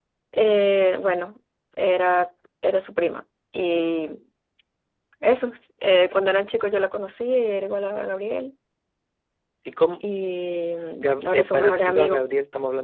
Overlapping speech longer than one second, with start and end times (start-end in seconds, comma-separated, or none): 11.0-12.2